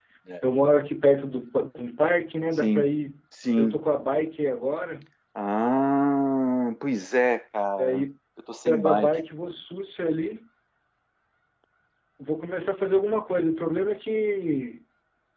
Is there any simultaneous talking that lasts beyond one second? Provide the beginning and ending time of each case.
none

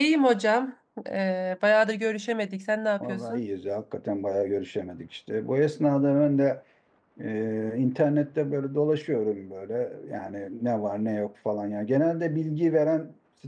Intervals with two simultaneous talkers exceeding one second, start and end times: none

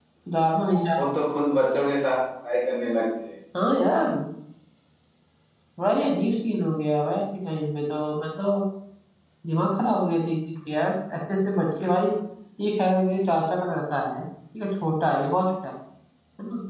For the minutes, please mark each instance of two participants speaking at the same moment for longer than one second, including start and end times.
none

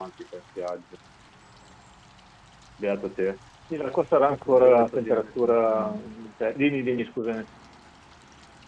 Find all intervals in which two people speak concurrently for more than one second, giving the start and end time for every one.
4.5-6.0

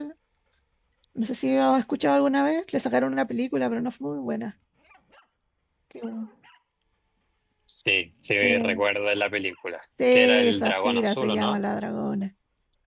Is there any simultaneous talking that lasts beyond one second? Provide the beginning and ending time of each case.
10.1-11.6

